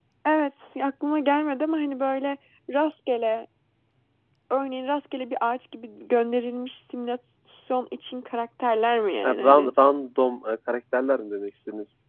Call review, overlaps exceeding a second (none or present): none